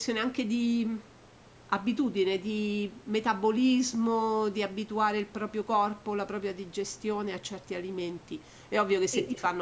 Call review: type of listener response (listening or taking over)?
listening